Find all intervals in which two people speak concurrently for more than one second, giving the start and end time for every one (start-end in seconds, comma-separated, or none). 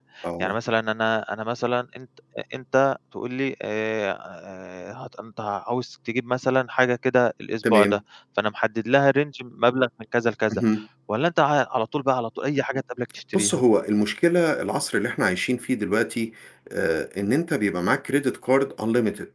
none